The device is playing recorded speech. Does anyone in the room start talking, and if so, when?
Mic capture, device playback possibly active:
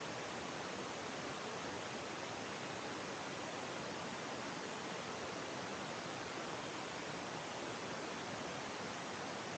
none

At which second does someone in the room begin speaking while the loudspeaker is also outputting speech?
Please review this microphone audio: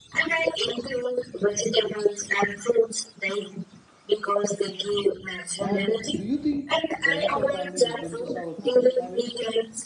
5.6 s

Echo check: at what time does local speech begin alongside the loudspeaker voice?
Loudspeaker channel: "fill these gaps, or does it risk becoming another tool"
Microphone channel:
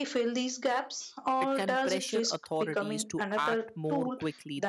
1.4 s

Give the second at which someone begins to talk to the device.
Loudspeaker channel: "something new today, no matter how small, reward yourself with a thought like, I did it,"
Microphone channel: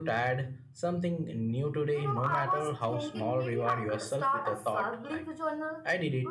1.9 s

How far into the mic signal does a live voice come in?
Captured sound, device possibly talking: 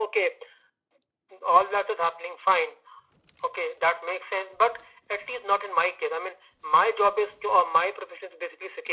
none

